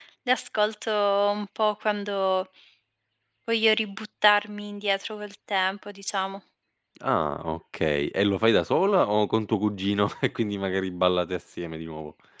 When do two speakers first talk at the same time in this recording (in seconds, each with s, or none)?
none